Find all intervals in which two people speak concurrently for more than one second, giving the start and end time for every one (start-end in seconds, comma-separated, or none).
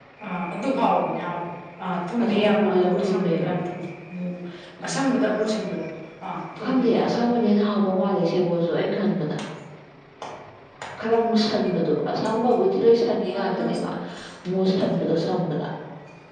2.2-3.5